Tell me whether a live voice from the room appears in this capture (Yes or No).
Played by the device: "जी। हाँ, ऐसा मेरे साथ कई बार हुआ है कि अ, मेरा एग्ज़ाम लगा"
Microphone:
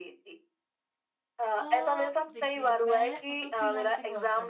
Yes